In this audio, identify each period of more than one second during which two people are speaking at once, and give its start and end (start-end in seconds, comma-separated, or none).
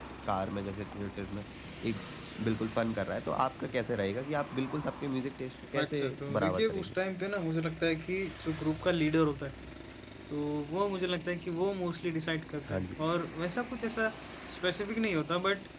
5.8-7.0